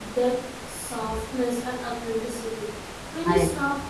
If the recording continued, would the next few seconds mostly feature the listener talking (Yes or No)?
No